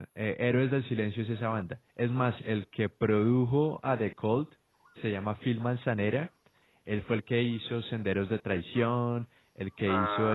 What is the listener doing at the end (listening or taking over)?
taking over